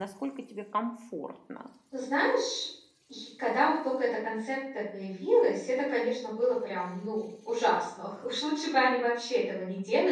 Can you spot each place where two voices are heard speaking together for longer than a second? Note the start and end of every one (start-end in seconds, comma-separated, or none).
none